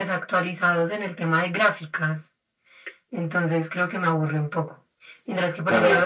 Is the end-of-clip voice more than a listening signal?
Yes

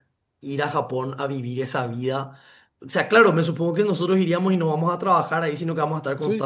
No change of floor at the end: Yes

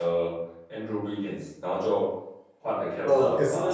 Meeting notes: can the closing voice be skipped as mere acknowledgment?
No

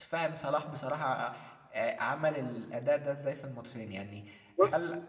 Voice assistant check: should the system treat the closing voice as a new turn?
No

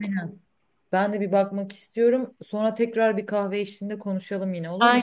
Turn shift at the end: Yes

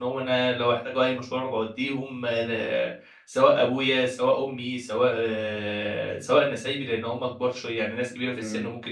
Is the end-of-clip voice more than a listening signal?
No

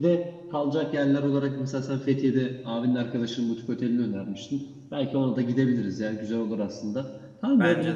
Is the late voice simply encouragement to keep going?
Yes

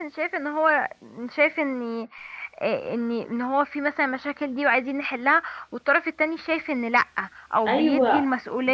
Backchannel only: No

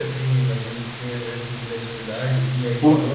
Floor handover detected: No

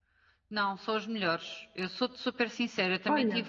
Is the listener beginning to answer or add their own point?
No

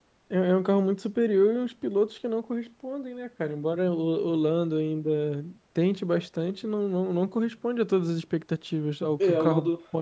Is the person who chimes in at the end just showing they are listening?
No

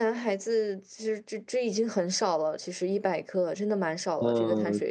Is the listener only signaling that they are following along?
No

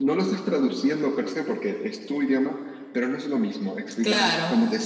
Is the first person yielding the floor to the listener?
No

